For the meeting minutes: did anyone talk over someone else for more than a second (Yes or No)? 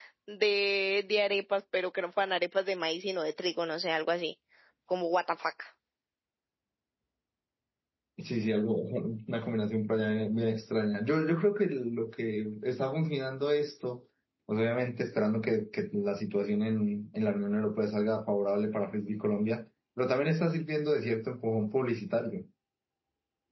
No